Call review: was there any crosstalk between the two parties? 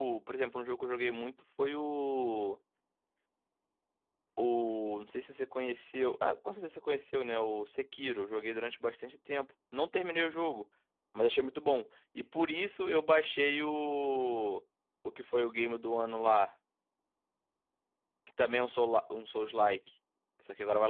No

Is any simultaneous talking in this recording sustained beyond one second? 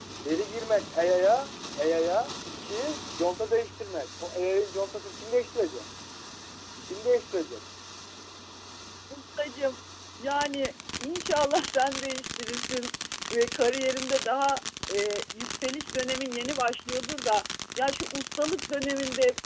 No

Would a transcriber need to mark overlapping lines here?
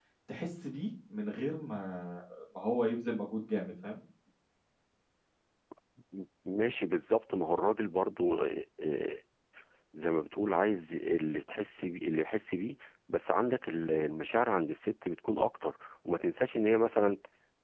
No

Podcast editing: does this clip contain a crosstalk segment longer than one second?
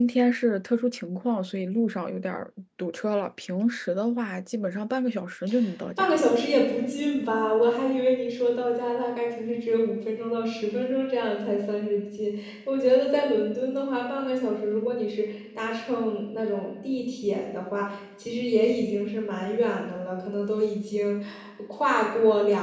No

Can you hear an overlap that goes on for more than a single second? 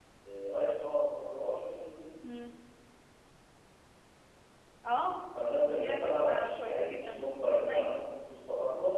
Yes, from 5.7 s

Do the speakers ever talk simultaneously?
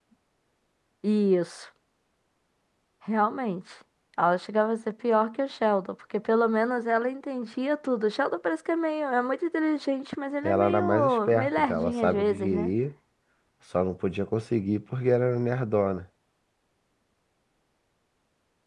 Yes, from 10.4 s

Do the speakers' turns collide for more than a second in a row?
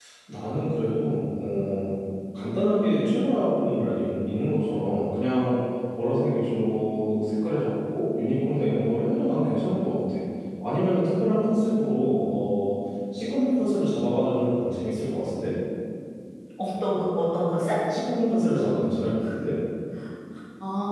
No

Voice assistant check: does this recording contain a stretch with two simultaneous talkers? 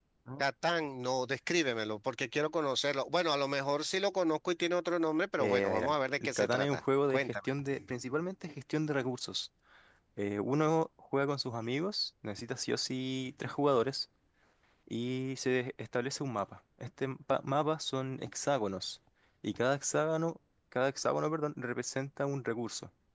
Yes, from 5.4 s

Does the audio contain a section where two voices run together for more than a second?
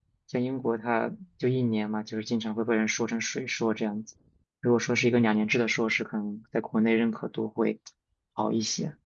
No

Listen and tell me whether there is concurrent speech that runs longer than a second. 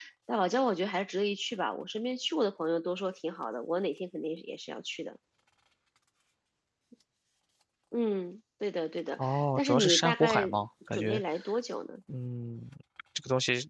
Yes, from 9.2 s

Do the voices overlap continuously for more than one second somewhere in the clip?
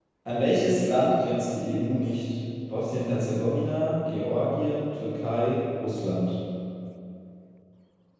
No

